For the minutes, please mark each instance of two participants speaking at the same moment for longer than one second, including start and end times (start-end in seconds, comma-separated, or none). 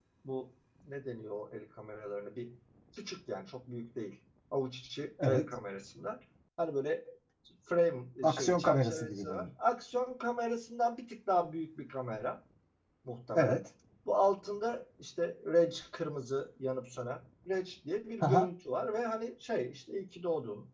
8.2-9.5